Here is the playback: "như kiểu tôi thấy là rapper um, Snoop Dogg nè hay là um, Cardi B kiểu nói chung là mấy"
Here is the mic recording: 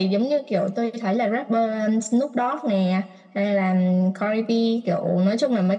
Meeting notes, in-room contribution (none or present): none